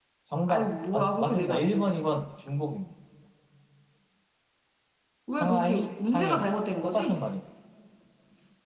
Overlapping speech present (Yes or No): Yes